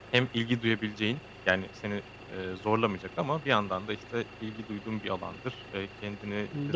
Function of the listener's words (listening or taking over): listening